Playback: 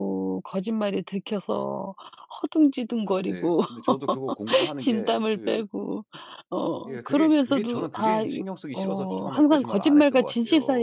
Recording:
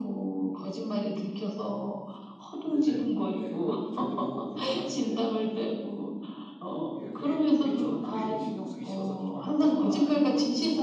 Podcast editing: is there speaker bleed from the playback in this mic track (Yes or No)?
Yes